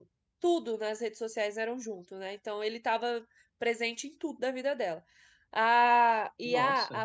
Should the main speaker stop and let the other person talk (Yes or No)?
No